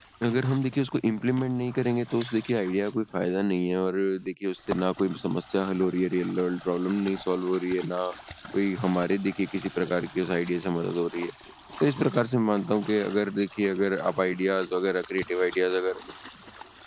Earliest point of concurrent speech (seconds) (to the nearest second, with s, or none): none